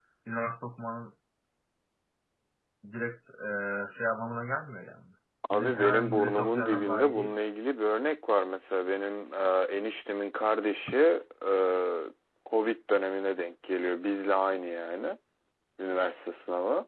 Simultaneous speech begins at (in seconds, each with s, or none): 5.5 s